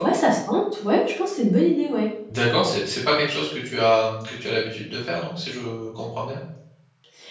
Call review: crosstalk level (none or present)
none